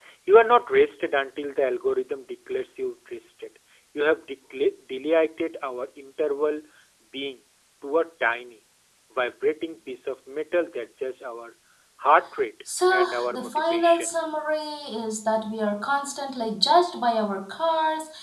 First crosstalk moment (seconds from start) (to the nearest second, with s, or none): 13 s